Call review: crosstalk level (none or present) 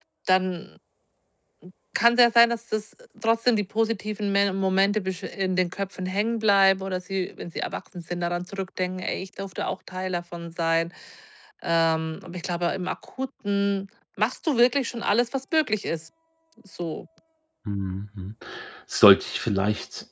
none